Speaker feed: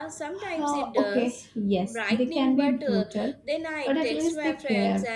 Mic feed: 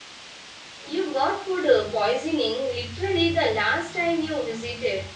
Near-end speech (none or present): present